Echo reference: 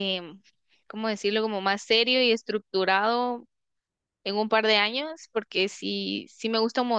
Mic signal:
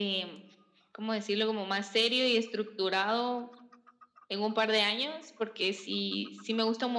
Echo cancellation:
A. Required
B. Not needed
A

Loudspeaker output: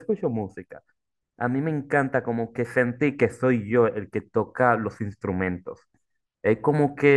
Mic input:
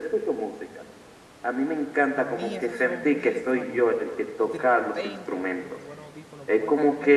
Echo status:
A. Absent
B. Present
B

